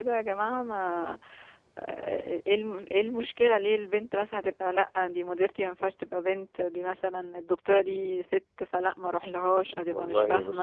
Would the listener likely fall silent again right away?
No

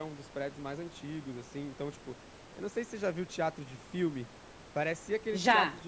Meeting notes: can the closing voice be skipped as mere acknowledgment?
Yes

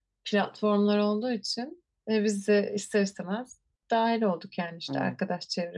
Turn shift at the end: No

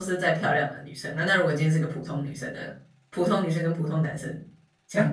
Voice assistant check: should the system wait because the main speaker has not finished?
No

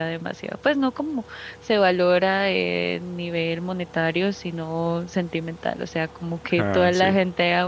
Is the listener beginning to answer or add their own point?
No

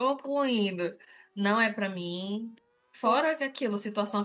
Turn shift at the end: No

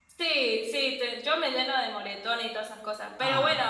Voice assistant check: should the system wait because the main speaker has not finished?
Yes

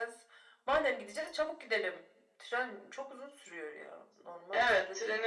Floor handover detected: Yes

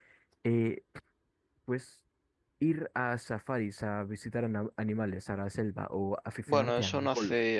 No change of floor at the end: No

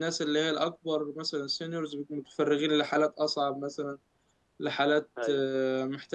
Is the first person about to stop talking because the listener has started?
No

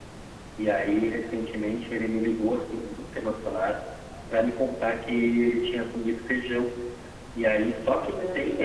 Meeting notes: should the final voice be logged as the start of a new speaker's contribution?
No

